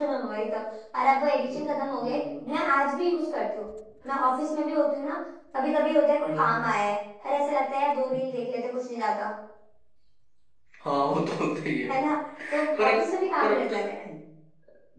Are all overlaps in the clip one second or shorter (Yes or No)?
No